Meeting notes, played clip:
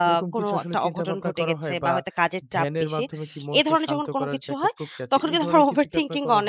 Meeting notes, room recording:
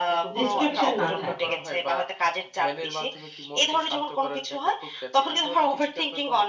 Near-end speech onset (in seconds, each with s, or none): 0.4 s